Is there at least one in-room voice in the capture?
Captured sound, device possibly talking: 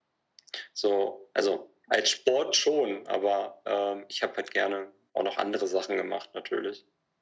No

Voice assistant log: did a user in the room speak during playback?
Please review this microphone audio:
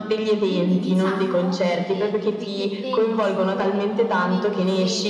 Yes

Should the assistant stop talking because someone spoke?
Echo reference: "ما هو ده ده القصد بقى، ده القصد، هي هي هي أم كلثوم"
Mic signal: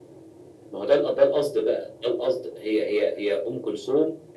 No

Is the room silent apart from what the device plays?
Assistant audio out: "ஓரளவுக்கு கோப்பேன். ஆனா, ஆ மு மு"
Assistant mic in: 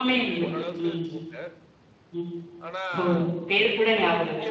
No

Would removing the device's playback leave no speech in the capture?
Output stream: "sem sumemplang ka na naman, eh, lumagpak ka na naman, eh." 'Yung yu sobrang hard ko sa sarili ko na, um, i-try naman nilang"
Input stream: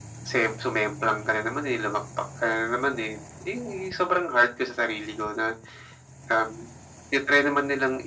Yes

